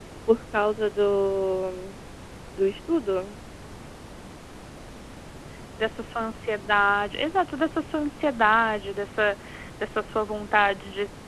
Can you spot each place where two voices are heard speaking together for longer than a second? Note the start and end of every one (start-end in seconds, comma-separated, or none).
none